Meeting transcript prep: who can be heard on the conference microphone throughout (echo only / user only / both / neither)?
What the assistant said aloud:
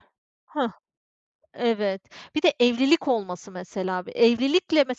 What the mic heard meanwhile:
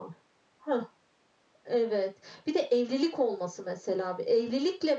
echo only